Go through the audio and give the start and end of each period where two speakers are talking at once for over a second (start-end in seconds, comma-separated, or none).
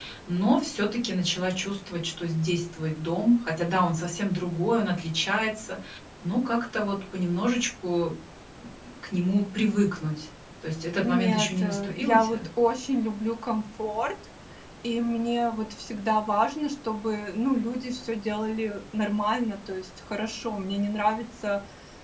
11.0-12.5